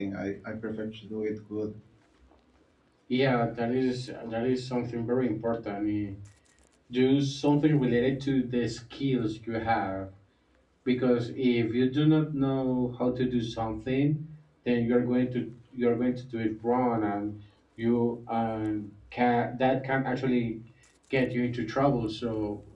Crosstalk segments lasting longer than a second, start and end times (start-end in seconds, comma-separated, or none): none